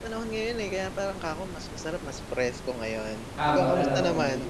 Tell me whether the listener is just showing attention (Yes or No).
No